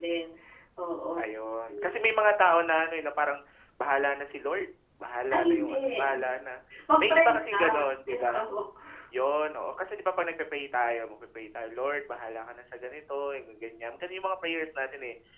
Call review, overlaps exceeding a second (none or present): present